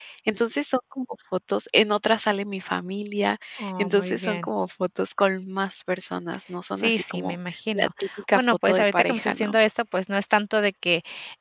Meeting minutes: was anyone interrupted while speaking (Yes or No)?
Yes